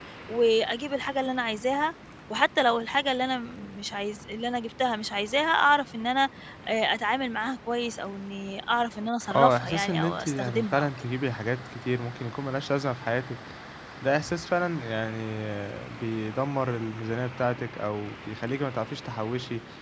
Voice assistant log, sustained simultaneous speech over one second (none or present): present